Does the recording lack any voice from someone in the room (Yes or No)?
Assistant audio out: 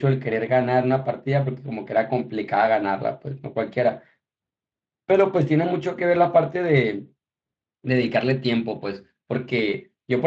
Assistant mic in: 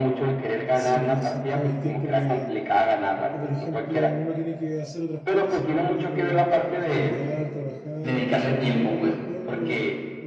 No